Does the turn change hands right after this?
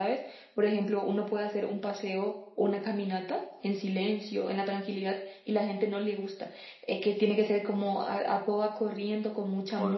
Yes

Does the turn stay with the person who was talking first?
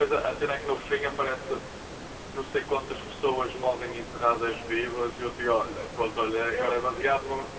Yes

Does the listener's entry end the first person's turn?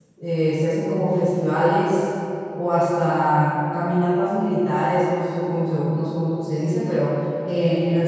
No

